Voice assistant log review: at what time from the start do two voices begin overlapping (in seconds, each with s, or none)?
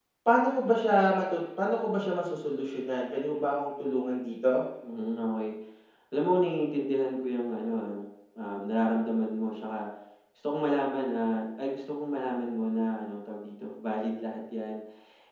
none